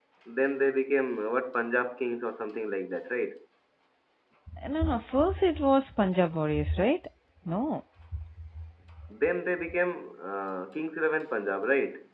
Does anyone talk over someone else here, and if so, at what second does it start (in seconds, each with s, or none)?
none